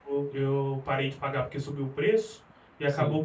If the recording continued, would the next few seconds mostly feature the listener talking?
No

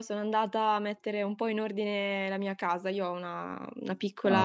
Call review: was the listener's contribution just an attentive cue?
Yes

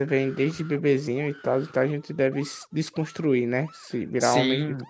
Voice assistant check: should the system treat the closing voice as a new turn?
Yes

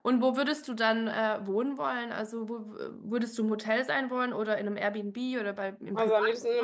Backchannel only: No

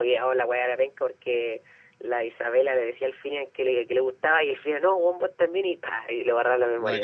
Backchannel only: No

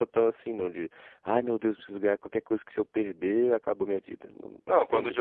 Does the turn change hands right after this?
Yes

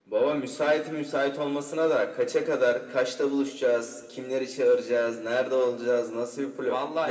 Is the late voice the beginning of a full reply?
Yes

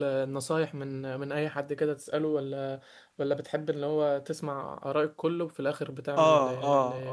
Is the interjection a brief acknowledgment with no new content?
No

